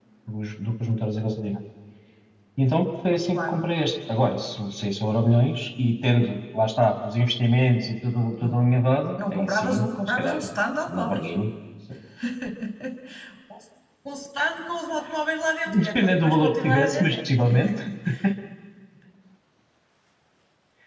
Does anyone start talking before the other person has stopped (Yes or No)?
Yes